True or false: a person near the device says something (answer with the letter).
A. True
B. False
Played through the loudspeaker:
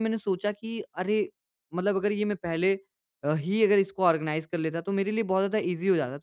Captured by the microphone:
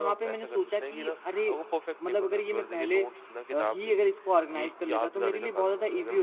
A